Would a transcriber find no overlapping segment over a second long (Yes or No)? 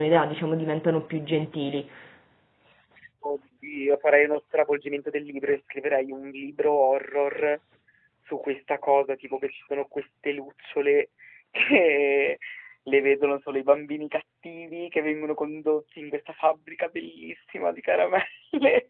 Yes